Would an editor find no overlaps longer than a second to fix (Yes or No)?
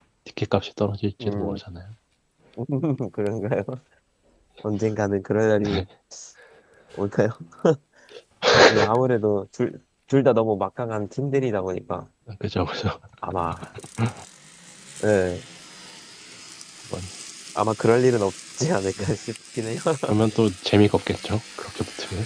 Yes